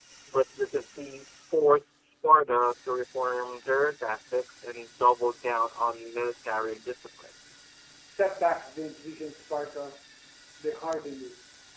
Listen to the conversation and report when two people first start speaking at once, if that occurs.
none

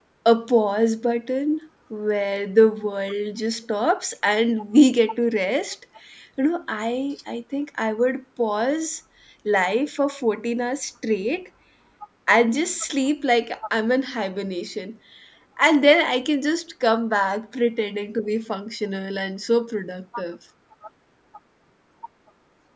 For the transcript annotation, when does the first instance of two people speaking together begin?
none

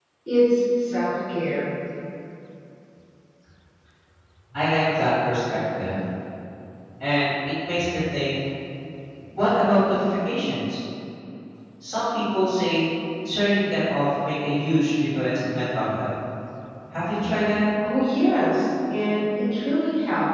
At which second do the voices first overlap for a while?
none

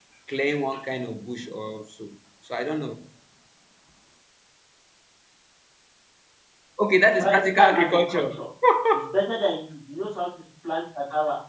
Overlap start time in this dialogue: 7.2 s

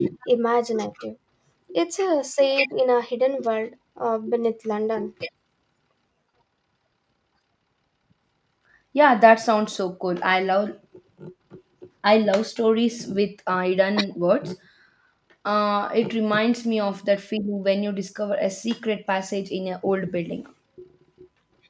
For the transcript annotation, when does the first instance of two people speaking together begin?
none

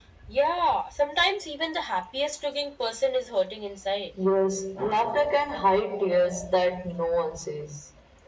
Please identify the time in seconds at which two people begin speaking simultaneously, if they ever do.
none

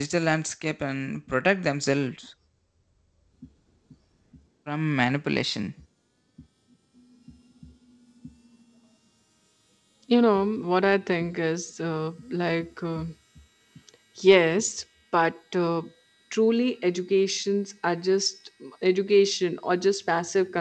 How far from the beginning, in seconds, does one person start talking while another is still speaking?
none

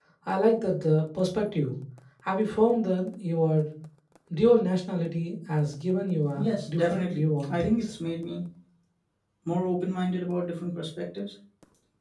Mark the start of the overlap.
6.4 s

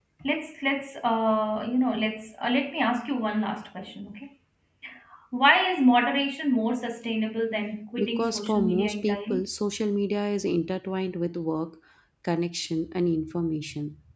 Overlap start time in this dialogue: 8.0 s

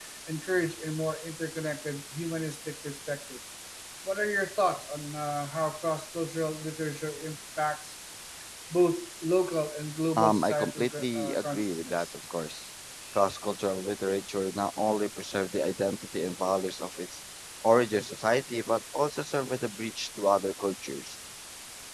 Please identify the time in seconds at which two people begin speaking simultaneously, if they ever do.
10.2 s

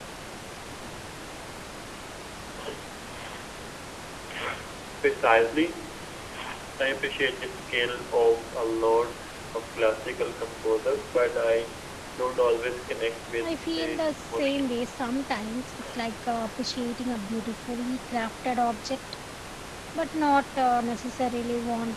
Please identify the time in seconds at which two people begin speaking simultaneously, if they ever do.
13.4 s

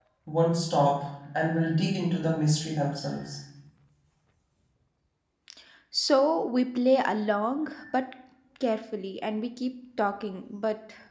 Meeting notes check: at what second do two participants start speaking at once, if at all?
none

